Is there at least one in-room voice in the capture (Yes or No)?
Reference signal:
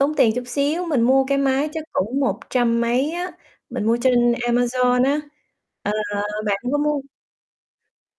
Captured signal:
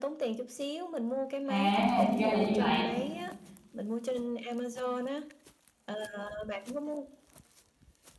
Yes